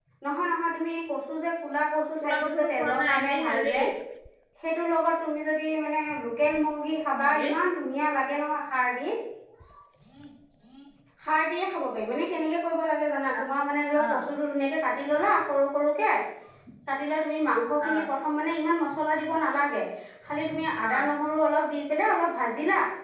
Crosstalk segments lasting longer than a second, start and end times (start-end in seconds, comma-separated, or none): 2.2-3.7